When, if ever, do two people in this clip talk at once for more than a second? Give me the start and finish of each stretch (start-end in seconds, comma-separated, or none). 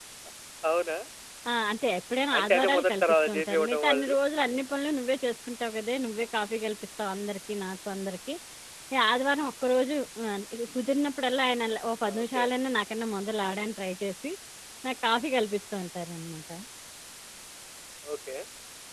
2.4-4.1